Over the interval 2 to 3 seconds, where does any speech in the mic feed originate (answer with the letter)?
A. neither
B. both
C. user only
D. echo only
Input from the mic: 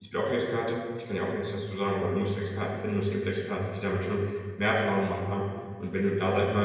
C